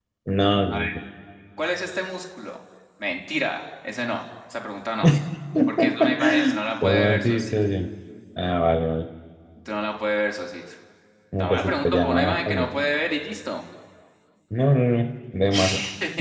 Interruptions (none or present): present